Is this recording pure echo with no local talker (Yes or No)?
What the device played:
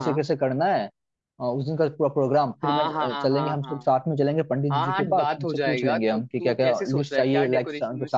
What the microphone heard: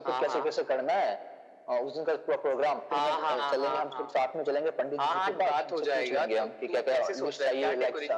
Yes